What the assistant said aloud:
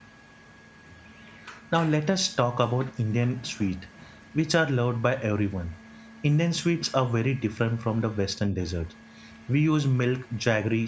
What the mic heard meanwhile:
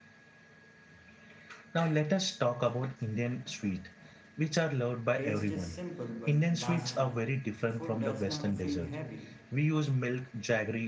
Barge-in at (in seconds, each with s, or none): 5.2 s